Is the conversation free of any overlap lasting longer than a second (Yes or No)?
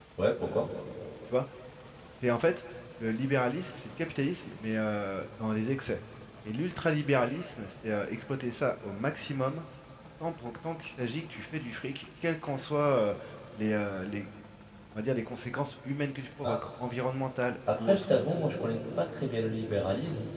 Yes